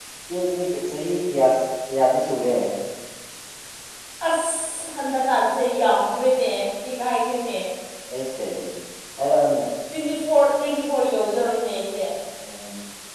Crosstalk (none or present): none